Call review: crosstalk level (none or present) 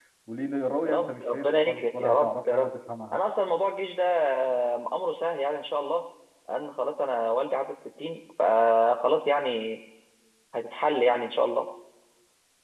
present